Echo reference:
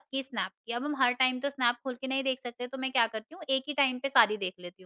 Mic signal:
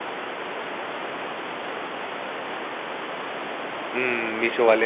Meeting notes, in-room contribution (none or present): present